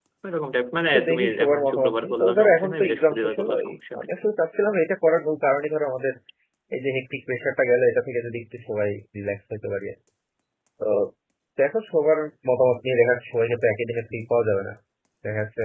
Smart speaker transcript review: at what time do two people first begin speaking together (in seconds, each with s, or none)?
0.9 s